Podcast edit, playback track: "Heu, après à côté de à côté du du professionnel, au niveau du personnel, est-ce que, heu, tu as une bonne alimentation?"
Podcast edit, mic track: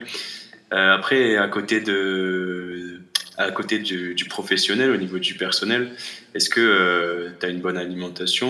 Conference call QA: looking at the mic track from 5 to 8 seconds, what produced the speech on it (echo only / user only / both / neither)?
echo only